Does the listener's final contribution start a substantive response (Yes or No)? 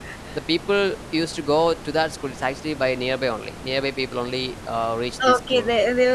Yes